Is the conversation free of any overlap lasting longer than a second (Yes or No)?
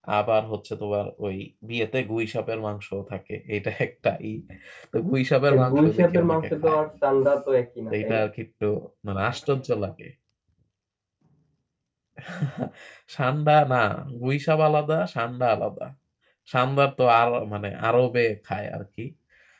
No